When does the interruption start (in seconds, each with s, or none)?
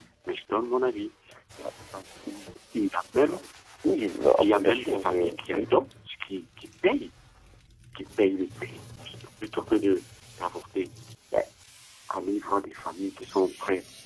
4.4 s